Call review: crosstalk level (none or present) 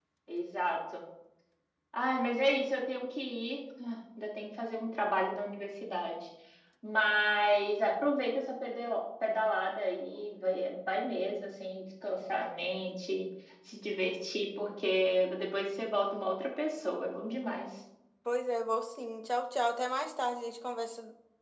none